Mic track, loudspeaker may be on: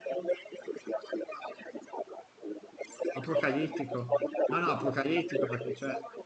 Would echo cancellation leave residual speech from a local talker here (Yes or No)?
Yes